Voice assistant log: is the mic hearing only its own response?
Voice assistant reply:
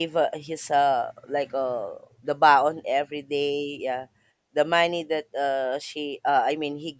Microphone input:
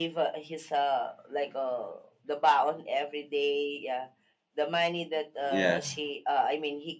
No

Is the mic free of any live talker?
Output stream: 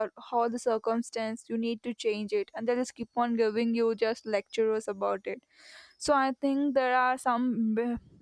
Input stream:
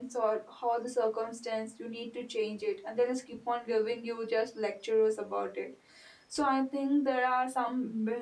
Yes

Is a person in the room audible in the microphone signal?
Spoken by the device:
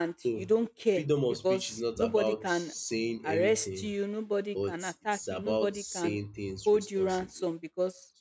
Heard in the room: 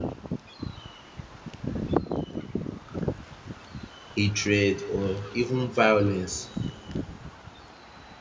Yes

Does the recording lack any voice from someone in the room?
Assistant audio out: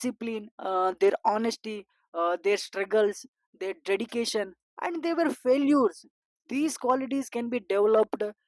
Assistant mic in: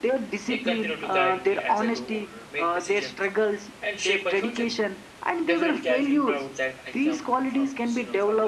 No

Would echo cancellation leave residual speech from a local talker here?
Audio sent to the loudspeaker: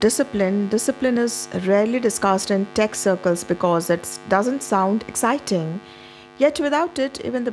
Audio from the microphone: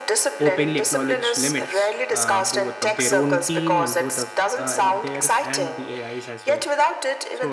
Yes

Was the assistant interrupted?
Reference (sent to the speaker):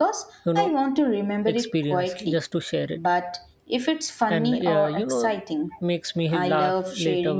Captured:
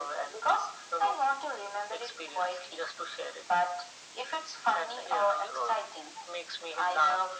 No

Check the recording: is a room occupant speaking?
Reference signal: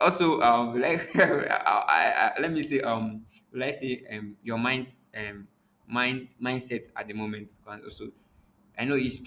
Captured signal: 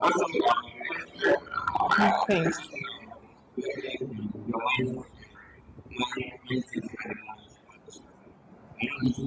Yes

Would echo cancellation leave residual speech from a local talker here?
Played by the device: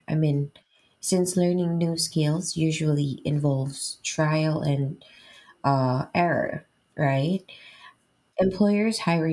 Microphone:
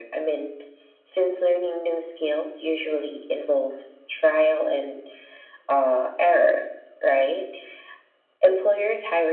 No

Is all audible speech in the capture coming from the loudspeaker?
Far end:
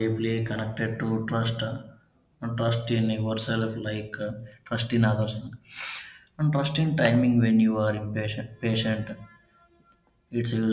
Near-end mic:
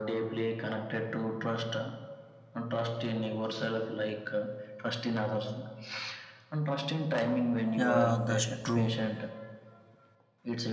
No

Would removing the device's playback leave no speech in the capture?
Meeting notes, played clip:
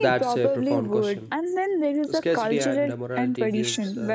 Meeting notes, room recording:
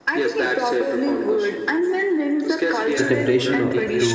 No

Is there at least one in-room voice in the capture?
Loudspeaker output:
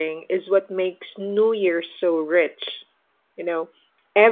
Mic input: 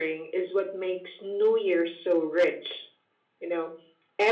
No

